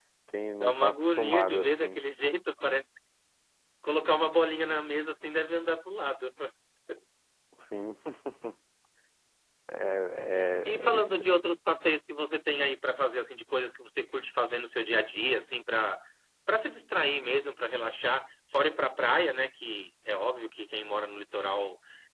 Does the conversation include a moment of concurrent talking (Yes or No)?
Yes